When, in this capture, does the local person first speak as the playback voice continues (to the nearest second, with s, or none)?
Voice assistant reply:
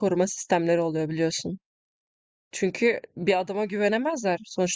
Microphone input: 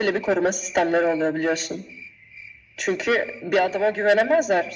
none